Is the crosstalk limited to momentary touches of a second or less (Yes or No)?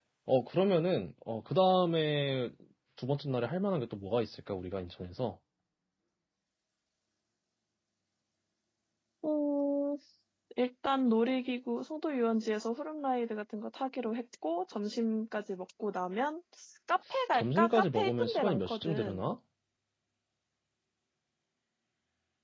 No